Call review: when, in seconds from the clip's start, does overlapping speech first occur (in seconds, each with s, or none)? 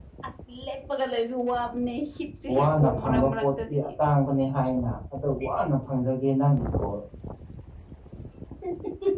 2.5 s